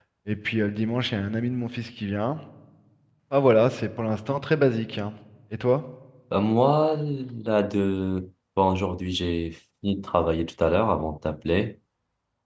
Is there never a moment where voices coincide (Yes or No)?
Yes